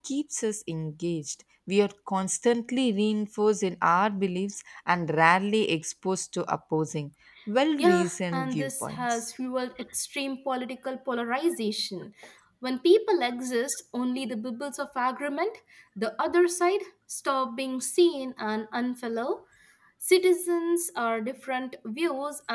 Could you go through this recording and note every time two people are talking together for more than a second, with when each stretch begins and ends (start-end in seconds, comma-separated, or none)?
7.8-9.3